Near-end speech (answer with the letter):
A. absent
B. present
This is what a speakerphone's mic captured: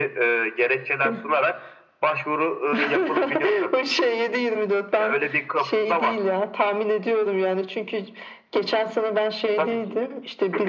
A